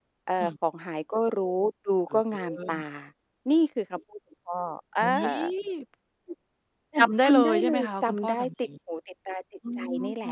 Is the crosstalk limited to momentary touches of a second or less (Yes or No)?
No